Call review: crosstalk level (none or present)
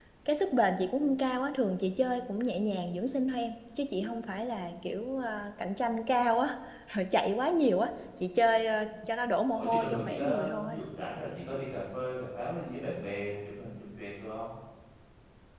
present